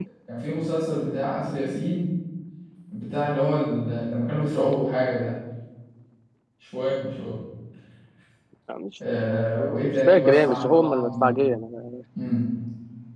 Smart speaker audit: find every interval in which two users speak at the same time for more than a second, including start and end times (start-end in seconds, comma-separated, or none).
9.6-11.3